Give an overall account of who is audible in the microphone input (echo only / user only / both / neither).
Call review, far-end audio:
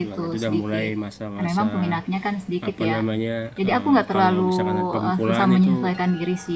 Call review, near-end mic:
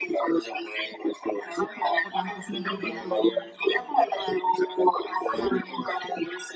both